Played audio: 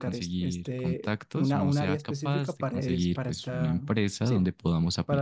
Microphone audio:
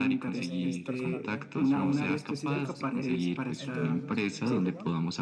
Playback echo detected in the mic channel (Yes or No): Yes